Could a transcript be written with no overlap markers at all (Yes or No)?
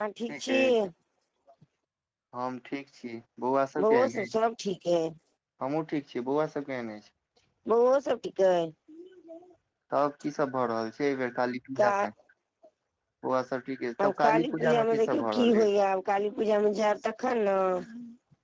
No